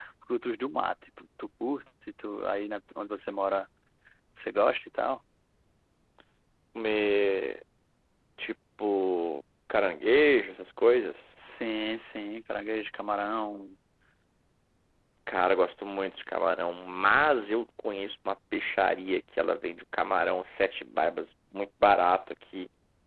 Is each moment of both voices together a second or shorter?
Yes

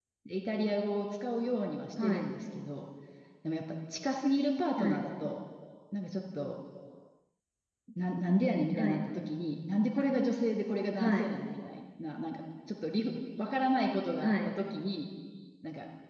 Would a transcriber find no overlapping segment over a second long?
Yes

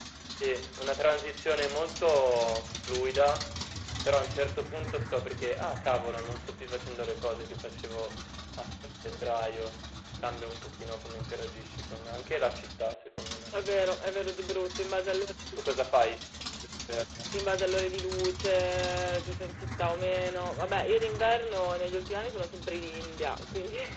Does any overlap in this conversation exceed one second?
No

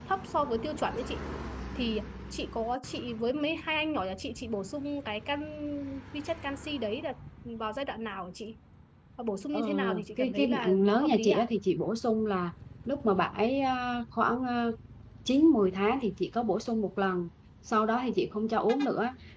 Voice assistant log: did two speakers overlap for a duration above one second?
Yes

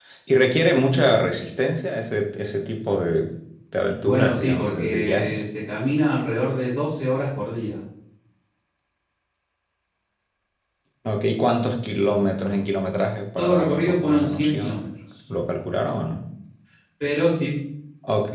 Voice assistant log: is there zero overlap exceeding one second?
No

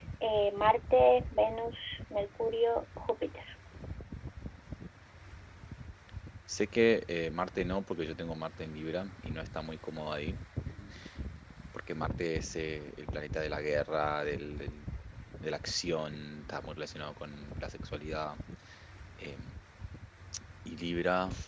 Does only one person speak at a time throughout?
Yes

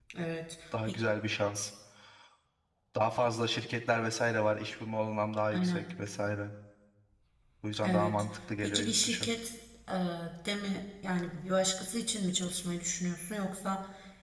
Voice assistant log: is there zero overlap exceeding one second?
No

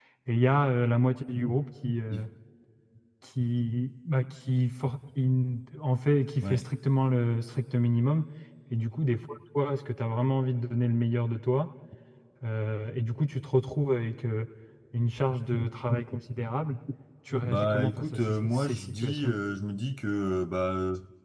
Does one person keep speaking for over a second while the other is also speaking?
Yes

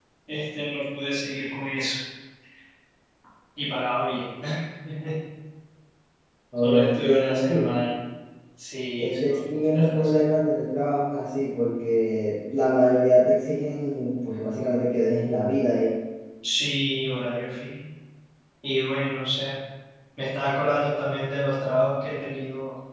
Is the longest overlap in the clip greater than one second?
Yes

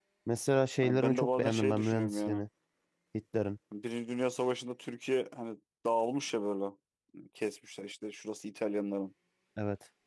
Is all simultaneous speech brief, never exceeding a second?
No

